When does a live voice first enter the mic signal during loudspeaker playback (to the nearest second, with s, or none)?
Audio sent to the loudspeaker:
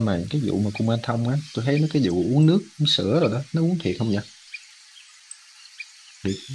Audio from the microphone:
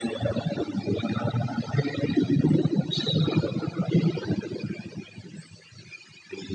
none